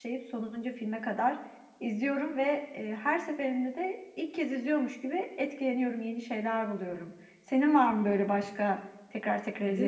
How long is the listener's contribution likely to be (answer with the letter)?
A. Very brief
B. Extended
B